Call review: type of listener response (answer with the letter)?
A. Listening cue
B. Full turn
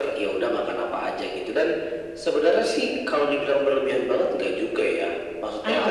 A